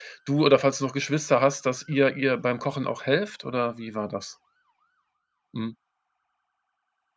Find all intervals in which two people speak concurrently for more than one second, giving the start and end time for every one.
none

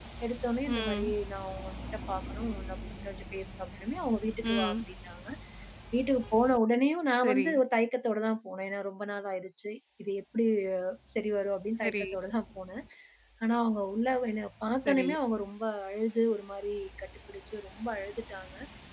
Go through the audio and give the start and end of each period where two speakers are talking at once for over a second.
none

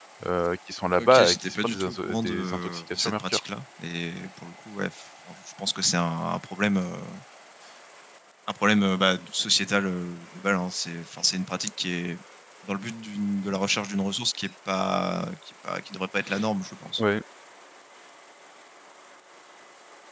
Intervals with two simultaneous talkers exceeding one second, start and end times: 1.0-3.4

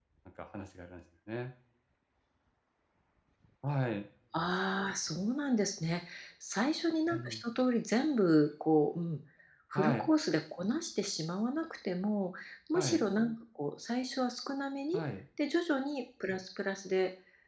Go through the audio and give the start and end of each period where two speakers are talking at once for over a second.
none

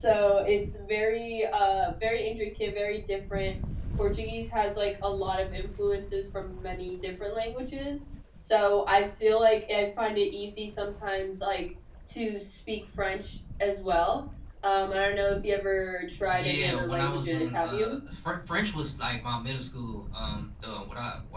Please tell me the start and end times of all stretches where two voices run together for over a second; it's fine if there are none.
16.3-18.0

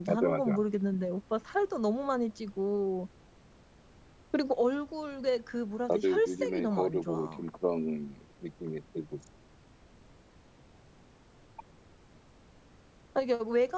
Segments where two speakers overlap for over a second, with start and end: 5.9-7.4

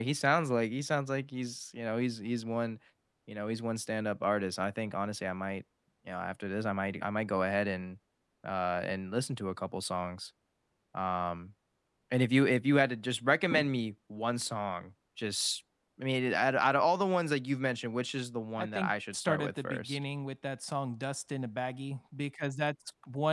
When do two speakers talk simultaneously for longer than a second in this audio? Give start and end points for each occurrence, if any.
18.6-20.0

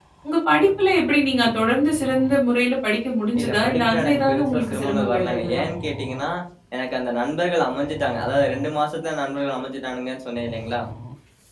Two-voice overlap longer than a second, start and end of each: 3.4-5.6

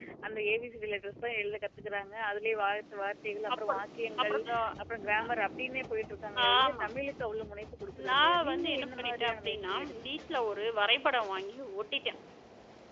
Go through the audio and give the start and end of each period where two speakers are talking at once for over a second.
8.1-10.3

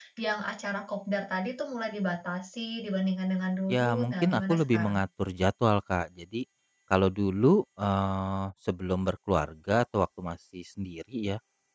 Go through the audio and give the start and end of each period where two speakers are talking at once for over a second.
3.7-5.0

